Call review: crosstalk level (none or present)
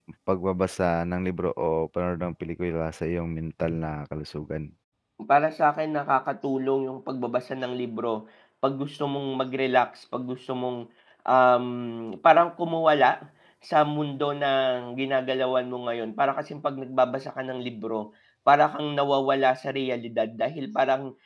none